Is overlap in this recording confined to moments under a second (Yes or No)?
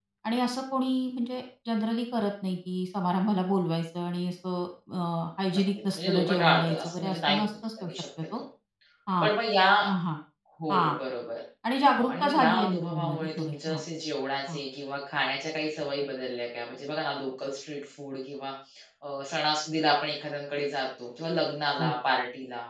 No